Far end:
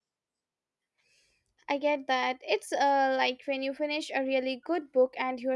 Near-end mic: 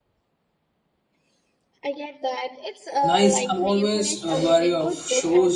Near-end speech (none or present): present